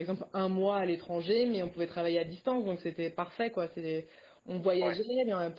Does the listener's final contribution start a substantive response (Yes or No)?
No